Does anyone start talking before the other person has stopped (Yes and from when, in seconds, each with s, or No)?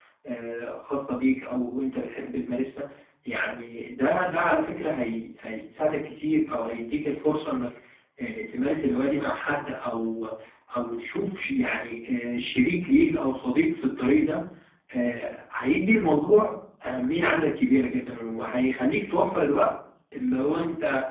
No